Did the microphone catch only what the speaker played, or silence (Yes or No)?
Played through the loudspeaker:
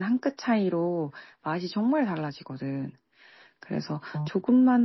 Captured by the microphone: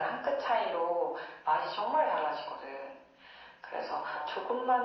Yes